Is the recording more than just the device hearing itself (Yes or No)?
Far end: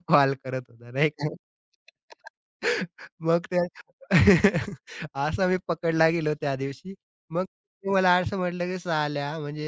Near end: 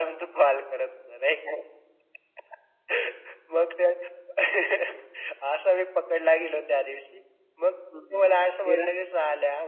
Yes